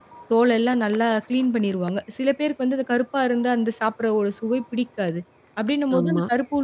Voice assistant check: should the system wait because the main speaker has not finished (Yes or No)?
Yes